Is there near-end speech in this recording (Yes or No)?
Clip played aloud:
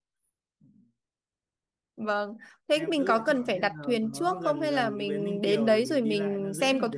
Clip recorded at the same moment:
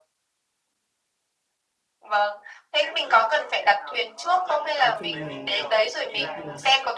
Yes